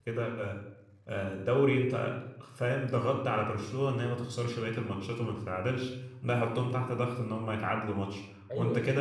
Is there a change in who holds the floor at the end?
No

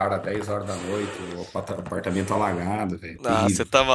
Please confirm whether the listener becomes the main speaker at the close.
Yes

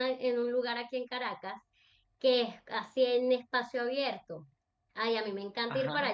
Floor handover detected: No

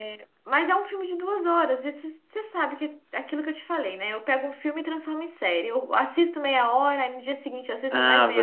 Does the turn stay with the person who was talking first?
No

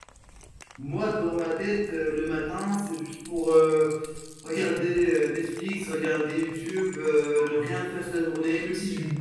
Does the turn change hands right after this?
Yes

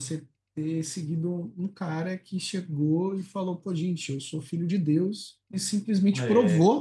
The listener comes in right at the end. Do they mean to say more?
No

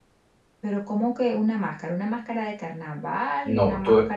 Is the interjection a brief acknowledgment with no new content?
No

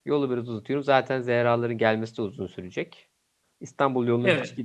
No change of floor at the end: Yes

